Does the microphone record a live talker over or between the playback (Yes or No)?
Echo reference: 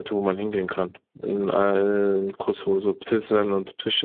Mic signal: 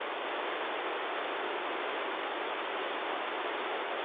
No